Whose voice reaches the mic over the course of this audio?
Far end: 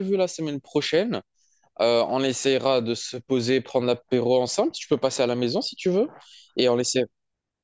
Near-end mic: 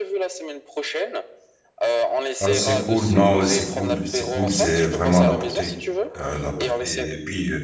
both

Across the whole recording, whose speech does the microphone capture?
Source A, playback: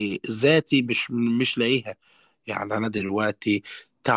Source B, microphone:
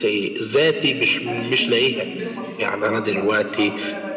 both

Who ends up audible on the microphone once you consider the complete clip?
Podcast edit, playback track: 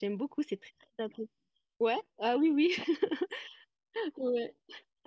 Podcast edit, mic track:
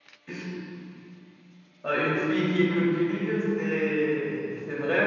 user only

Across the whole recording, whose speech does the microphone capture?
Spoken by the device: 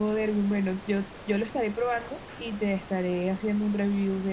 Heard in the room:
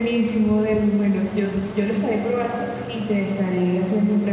echo only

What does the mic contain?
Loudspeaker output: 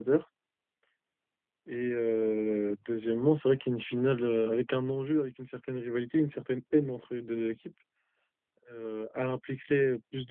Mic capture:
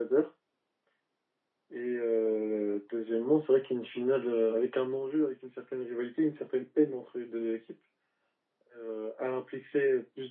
echo only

